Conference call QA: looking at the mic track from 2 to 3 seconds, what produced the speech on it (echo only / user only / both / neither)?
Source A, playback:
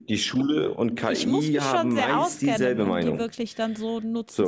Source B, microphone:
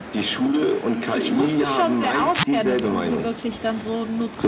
echo only